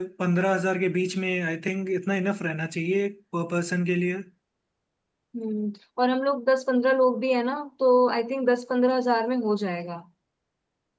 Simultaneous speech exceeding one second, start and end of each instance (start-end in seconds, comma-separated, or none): none